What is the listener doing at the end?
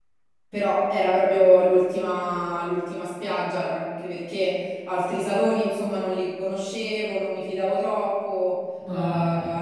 listening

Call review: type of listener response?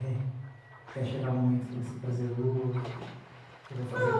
taking over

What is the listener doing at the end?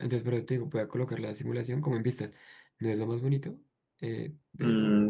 taking over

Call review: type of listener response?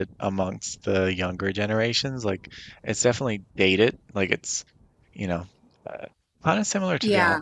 listening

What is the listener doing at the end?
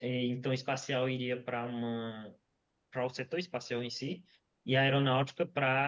listening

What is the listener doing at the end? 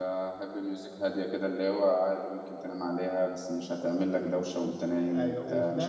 taking over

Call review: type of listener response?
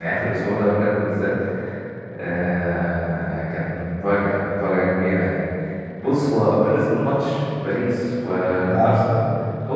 listening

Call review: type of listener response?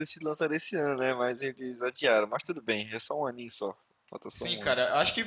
taking over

